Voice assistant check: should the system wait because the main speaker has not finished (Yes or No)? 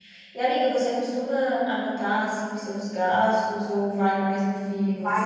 No